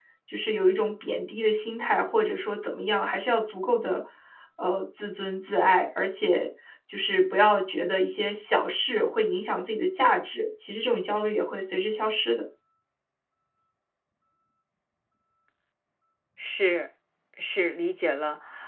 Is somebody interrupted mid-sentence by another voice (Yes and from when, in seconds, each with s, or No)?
No